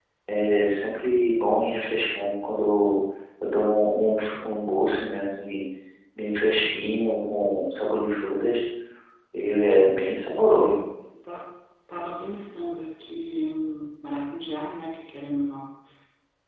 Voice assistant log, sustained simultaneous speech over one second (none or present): none